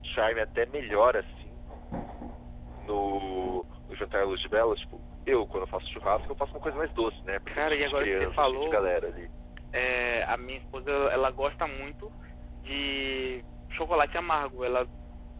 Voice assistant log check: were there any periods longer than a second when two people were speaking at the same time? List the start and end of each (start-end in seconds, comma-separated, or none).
7.5-8.8